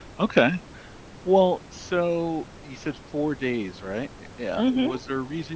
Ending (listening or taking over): listening